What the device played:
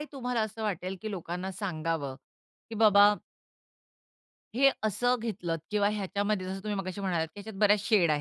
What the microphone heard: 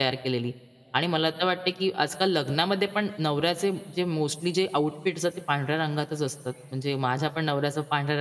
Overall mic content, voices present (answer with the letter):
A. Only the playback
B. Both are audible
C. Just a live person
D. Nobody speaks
C